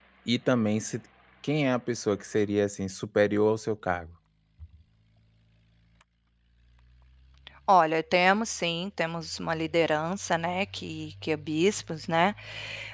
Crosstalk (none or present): none